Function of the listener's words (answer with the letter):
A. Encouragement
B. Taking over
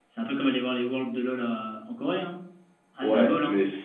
B